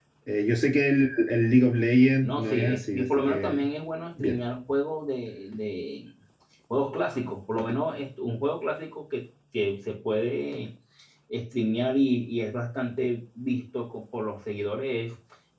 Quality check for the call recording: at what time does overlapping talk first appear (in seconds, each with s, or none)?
2.2 s